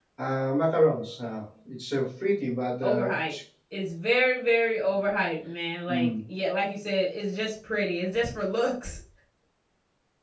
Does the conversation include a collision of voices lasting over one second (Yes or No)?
No